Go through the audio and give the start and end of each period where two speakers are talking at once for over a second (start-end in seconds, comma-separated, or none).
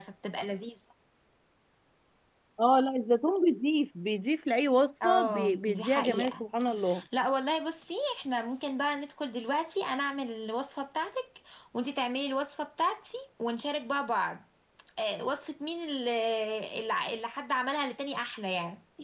5.0-6.4